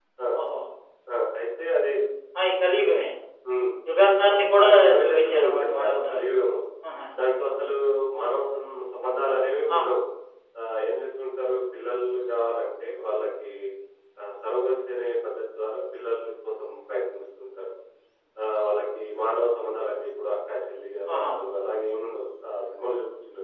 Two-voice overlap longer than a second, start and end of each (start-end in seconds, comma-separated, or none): 4.3-6.2